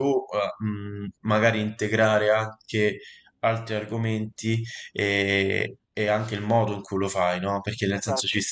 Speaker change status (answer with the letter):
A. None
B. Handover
A